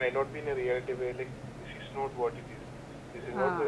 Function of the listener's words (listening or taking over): listening